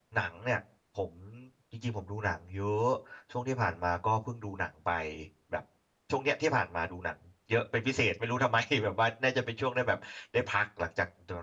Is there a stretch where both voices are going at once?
No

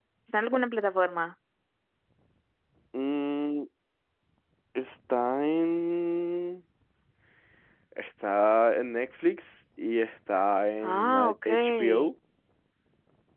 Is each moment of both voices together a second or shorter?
No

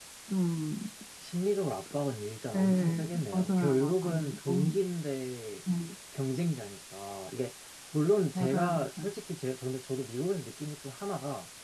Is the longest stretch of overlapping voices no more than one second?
No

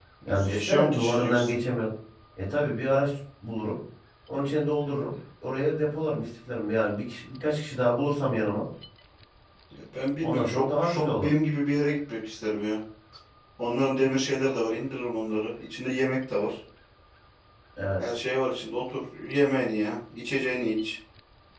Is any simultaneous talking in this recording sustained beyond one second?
Yes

